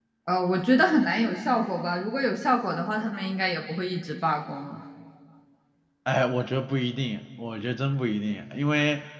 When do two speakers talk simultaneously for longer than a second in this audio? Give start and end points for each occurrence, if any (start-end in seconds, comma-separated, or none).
none